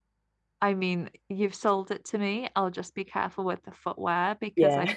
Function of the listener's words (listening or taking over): listening